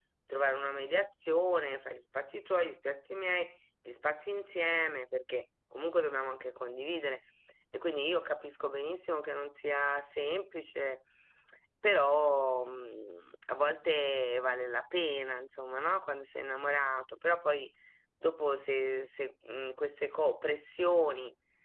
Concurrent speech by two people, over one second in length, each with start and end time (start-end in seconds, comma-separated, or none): none